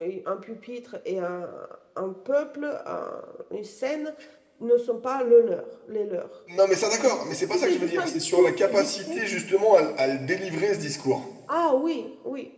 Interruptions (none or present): present